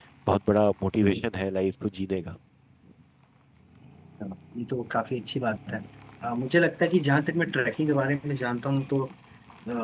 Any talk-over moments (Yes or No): No